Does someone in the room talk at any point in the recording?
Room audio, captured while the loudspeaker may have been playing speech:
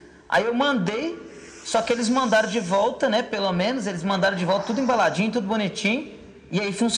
No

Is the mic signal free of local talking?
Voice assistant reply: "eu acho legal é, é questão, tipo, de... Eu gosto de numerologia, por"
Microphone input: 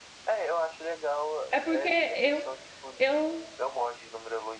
No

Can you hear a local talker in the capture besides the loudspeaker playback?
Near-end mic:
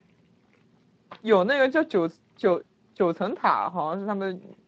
Yes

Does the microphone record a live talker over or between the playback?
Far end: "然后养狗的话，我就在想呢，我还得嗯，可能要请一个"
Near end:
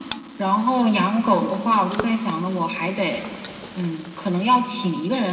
No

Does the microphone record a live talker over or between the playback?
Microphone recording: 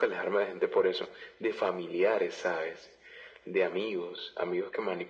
No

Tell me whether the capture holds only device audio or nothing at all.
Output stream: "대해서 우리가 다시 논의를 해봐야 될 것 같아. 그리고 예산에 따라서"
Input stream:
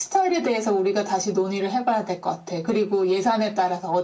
Yes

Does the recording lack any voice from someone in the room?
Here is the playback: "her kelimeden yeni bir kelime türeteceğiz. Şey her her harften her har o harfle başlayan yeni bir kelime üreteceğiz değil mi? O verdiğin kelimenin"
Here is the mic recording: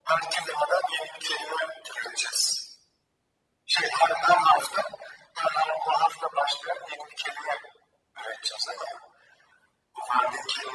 Yes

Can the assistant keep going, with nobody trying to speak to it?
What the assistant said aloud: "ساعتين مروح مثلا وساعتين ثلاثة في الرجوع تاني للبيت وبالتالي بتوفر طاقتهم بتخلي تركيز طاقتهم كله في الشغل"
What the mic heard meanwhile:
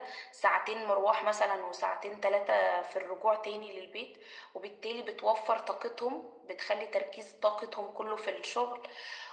Yes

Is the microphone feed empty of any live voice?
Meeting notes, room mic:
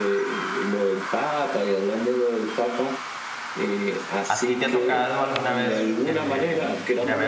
No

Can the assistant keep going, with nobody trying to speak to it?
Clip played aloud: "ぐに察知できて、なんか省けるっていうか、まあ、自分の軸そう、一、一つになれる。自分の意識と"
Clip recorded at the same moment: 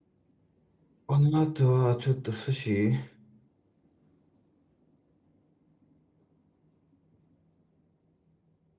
No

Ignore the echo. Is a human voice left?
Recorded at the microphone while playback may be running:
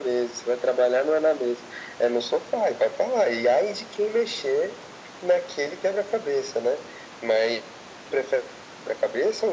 No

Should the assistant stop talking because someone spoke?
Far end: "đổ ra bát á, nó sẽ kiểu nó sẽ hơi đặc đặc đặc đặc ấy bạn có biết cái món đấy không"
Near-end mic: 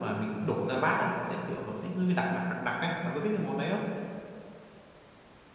No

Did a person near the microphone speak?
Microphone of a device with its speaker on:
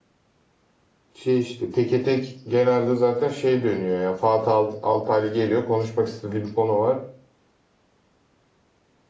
Yes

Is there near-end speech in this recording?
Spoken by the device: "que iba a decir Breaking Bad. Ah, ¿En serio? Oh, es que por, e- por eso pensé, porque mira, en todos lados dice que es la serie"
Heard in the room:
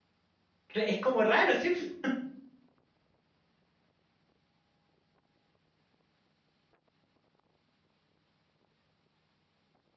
Yes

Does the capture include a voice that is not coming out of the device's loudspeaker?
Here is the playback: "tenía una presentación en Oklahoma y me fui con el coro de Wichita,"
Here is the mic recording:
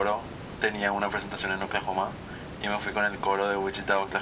No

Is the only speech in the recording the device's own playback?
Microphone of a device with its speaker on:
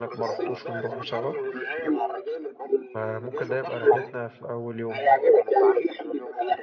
No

